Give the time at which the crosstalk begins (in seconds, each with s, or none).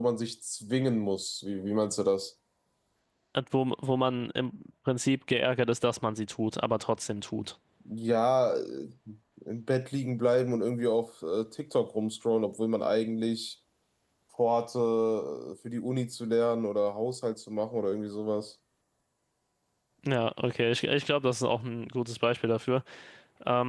none